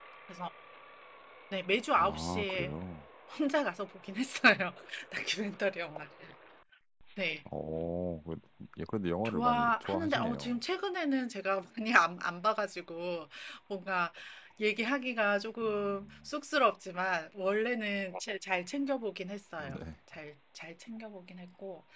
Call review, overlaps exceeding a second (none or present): present